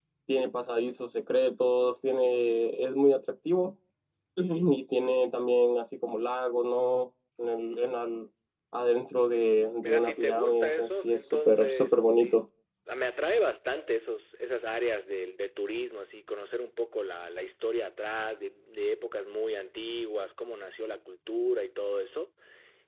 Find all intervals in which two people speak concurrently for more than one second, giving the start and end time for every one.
9.8-12.4

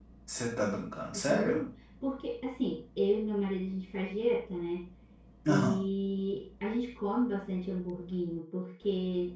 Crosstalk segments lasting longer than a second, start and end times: none

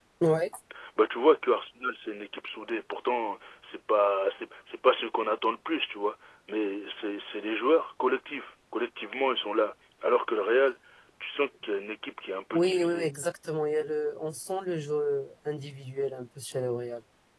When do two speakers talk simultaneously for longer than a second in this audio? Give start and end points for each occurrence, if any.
none

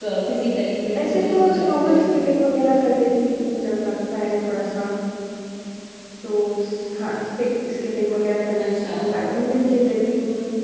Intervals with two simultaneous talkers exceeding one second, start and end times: 1.0-2.3

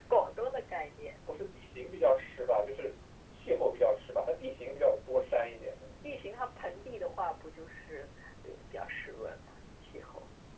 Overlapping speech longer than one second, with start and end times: none

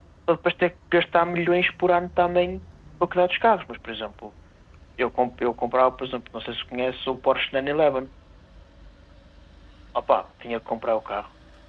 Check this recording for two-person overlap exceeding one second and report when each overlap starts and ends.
none

